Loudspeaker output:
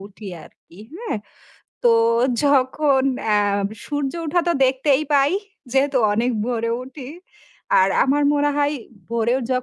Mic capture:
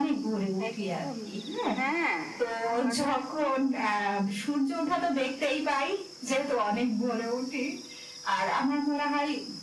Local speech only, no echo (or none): একদম। হ্যাঁ। আমাদের তো